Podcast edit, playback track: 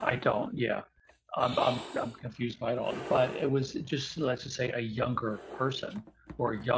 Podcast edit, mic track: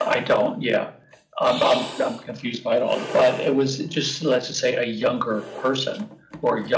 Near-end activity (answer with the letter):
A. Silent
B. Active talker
A